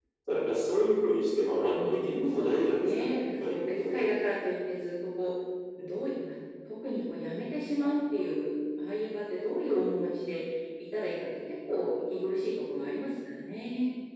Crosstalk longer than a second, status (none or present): present